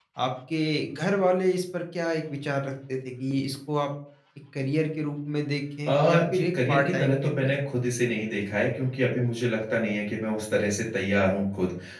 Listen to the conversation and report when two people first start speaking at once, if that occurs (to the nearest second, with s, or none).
6 s